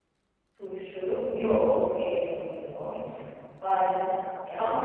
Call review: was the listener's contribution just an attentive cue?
No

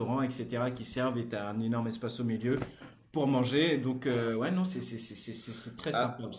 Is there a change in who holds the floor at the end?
Yes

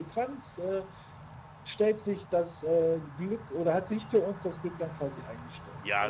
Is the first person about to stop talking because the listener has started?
Yes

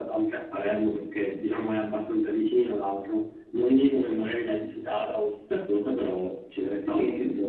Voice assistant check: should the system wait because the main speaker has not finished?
No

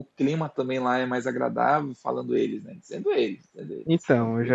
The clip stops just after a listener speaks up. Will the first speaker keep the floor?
No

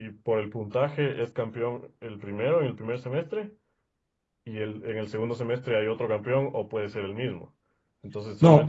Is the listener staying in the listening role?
Yes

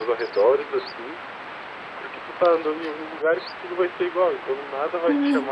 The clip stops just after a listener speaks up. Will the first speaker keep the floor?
Yes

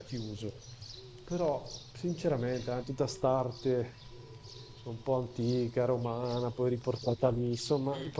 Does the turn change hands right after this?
No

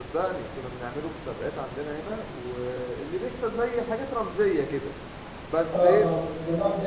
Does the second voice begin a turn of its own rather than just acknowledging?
Yes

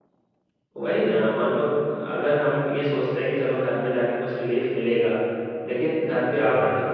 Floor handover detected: No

